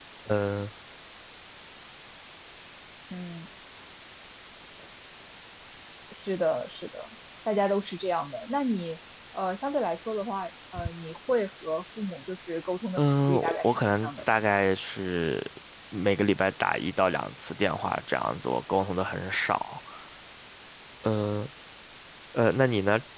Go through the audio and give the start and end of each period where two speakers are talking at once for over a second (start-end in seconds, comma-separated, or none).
13.0-14.2